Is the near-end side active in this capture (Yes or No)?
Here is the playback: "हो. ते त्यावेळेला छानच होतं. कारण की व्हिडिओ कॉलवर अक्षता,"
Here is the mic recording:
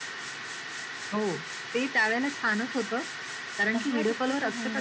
Yes